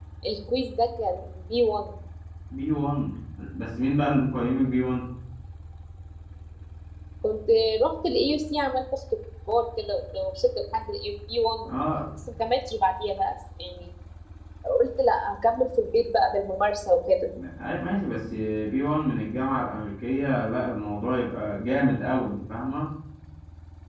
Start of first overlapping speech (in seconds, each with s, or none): none